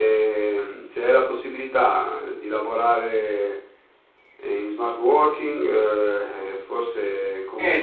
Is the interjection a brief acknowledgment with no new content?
No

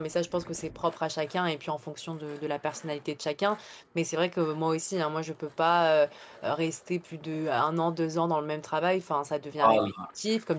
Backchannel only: Yes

